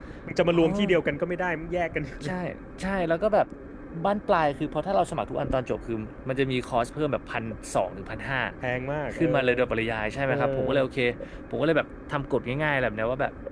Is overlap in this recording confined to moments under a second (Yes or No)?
Yes